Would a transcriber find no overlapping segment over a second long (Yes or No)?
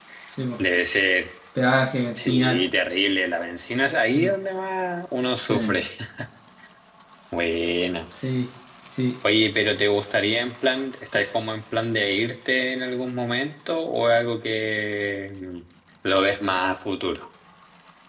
Yes